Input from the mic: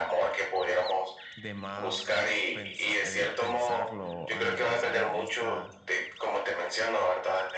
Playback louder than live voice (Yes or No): Yes